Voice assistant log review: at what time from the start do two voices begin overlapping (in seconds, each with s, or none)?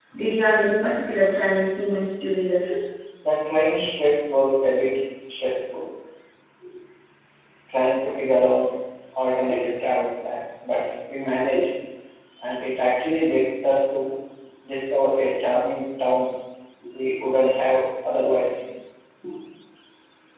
none